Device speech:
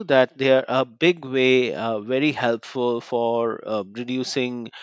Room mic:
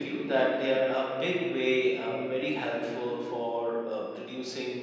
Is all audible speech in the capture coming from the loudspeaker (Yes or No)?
Yes